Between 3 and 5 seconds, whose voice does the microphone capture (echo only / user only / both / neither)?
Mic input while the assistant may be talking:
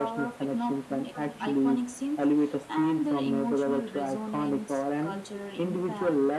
echo only